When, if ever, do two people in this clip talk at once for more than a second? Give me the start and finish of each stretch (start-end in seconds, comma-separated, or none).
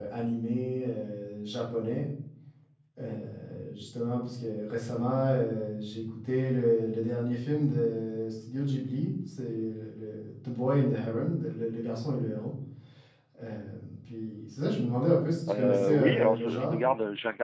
15.5-16.8